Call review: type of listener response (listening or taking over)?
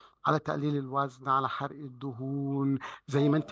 listening